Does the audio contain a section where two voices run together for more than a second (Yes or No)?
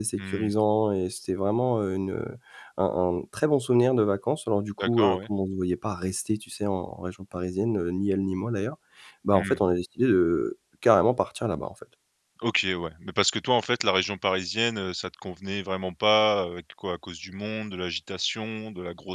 No